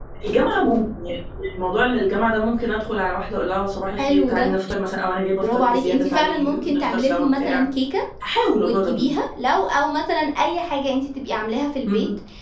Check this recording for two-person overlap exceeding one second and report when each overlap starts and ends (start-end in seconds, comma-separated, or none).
5.4-7.6